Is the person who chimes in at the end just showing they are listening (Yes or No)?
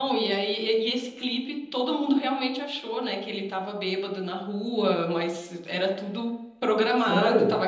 Yes